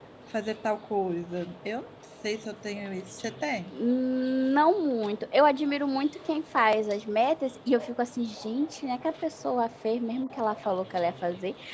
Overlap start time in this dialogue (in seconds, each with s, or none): none